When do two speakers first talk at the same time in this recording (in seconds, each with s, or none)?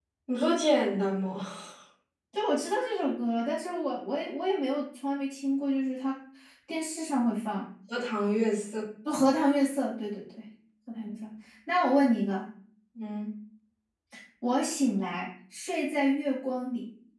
none